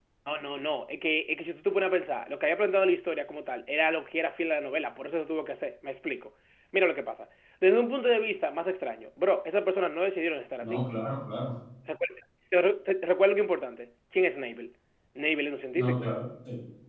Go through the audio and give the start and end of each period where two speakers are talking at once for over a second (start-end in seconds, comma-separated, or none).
none